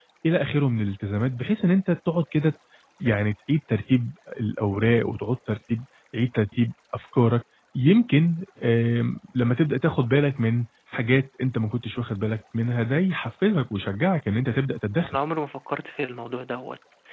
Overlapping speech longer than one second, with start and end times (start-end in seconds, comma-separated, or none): none